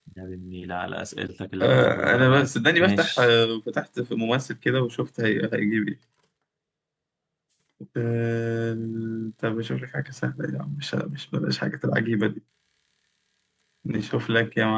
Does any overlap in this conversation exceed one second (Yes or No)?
Yes